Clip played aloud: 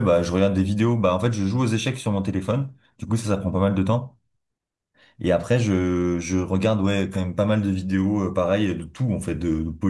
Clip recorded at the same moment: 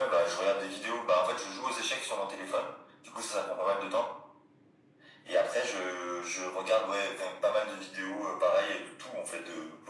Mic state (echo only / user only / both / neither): echo only